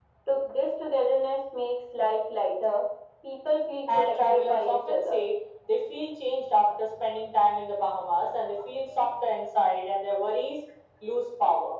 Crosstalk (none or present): present